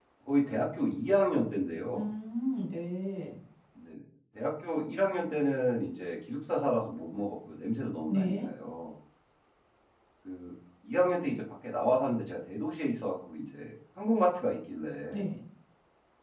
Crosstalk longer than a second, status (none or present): none